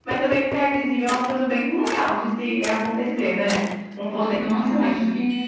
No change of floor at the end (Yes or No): No